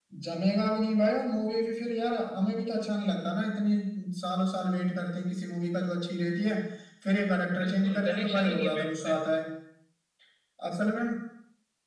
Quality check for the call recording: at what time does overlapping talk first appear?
7.6 s

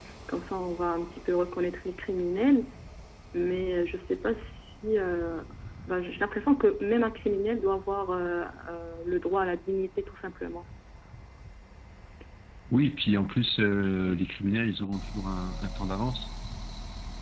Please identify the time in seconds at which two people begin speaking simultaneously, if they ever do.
none

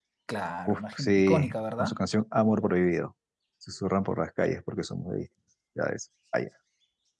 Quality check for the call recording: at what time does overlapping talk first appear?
0.7 s

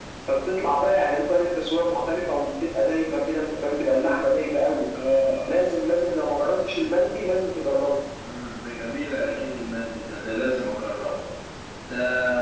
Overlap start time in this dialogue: none

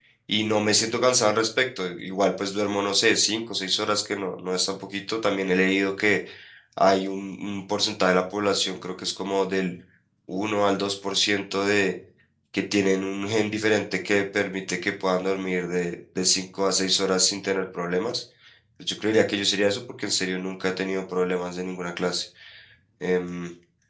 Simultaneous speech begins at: none

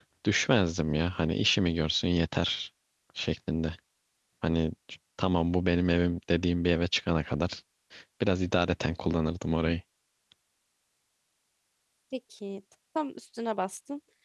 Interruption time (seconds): none

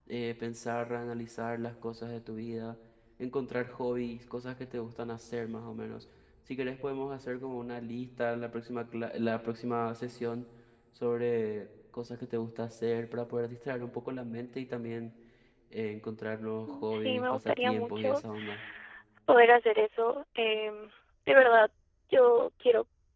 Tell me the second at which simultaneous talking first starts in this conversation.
16.7 s

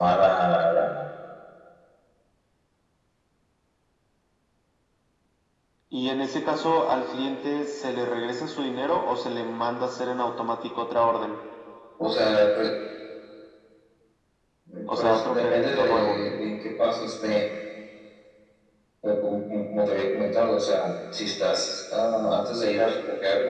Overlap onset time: 14.9 s

